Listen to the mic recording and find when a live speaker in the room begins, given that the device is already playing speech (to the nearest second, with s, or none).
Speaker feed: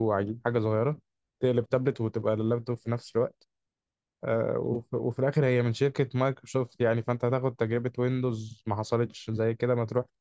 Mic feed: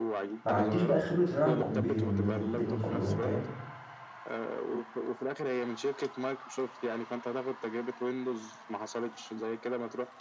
0 s